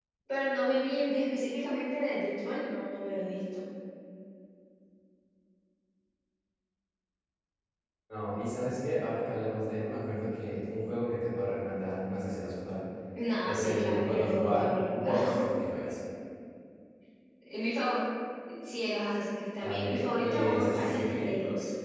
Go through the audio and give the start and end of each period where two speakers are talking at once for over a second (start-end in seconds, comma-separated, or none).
13.4-15.4, 19.6-21.3